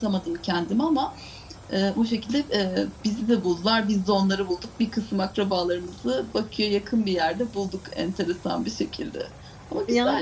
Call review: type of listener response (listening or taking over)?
taking over